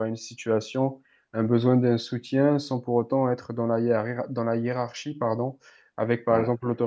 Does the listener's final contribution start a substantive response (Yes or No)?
No